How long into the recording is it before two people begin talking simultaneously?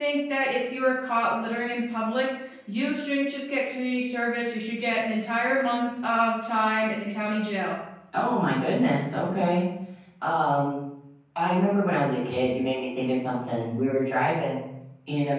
none

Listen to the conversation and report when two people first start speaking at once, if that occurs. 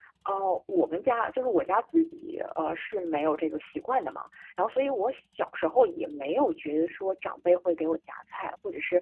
none

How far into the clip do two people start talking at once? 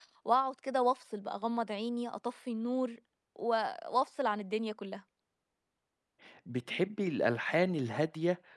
none

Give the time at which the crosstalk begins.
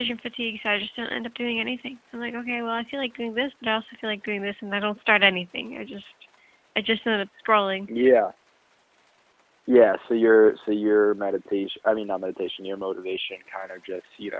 none

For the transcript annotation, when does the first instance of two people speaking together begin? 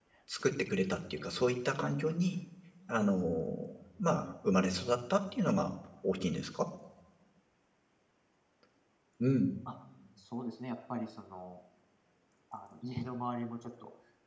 none

